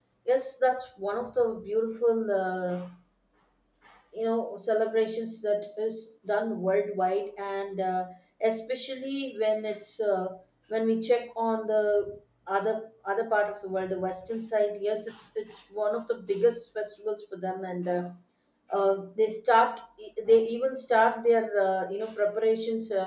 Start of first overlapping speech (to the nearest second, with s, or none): none